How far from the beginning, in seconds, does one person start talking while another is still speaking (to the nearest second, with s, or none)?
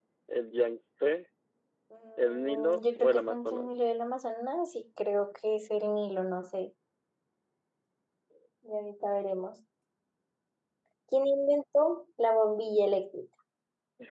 2 s